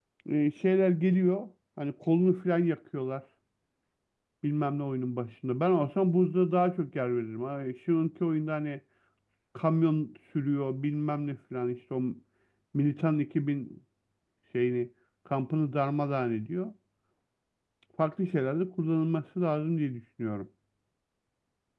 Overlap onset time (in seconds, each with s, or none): none